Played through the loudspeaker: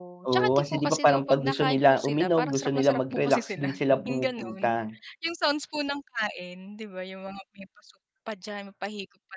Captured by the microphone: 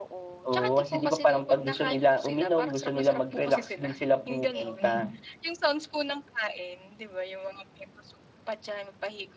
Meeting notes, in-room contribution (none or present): present